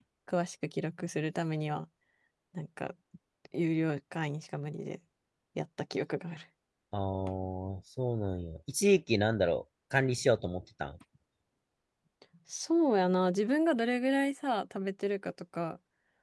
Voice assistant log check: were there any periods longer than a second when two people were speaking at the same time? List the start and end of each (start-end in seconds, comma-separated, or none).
none